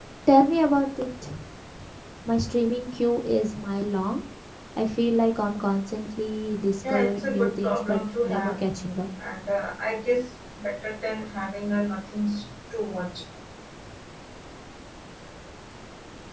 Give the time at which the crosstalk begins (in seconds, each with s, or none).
6.8 s